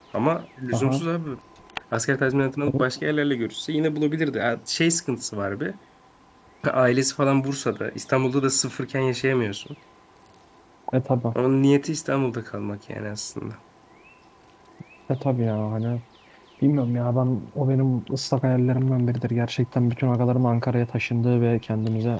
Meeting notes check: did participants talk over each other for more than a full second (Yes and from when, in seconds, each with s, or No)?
No